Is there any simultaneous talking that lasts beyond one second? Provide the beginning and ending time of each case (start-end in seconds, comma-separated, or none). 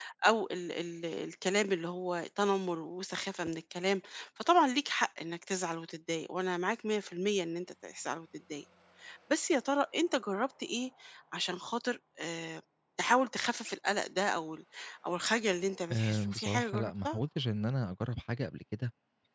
15.9-17.2